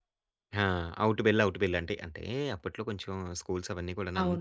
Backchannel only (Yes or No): No